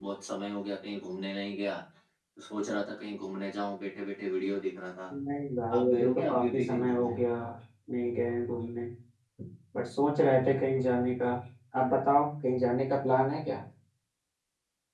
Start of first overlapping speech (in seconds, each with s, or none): 5.8 s